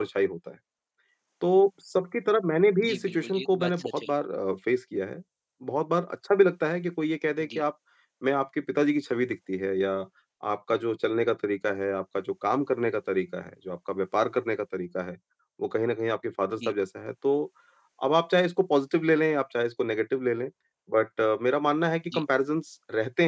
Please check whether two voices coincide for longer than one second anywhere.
Yes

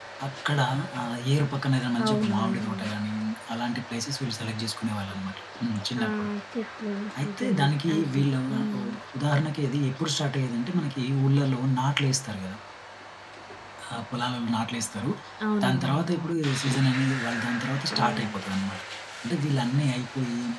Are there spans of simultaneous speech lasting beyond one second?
Yes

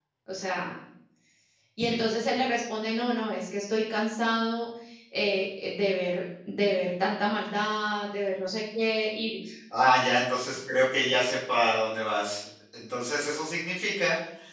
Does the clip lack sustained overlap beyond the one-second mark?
Yes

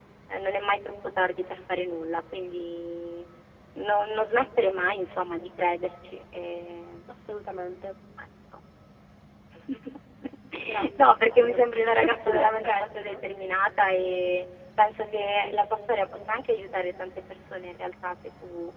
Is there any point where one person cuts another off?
Yes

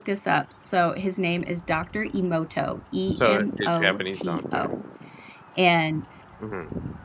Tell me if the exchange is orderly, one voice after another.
No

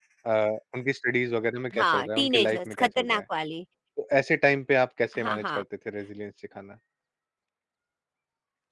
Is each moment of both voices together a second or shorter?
No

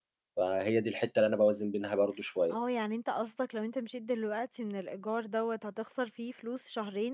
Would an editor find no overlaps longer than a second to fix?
Yes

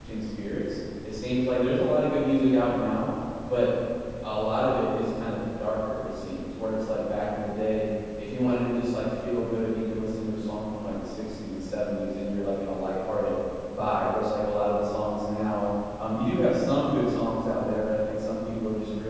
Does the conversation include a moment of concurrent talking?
No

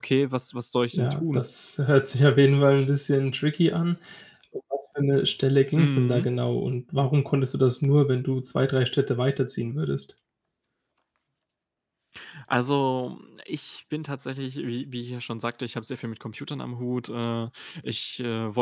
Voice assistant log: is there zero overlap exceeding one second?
Yes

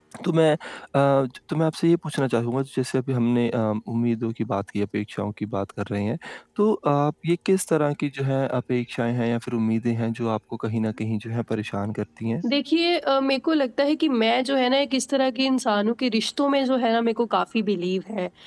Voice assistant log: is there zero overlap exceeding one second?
Yes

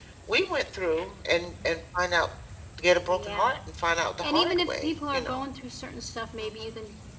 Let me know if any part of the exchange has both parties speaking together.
Yes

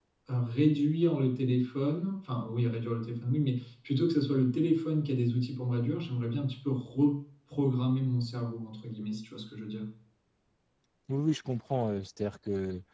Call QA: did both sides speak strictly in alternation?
Yes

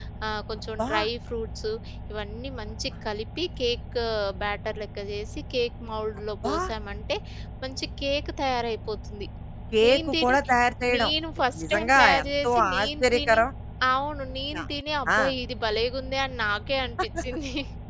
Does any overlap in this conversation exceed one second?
Yes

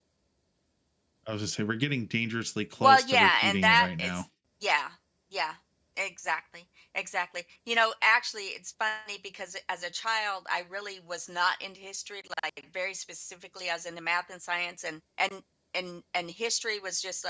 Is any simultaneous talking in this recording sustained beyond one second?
Yes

